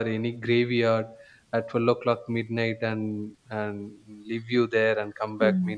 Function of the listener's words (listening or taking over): taking over